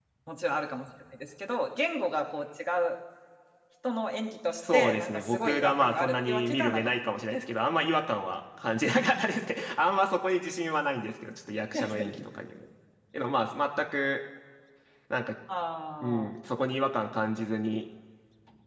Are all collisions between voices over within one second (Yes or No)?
No